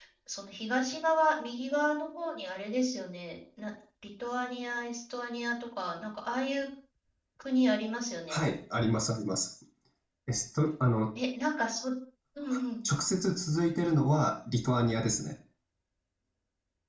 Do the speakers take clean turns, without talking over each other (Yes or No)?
Yes